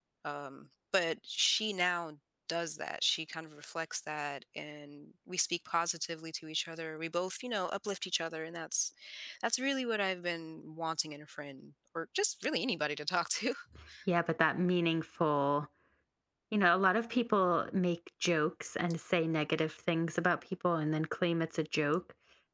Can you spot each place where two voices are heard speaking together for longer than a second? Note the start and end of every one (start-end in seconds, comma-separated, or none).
none